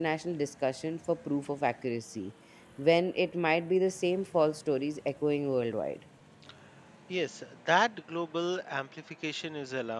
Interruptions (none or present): none